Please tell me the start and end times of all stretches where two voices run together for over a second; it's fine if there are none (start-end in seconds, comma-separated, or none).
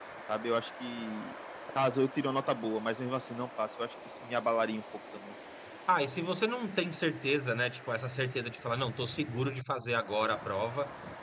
none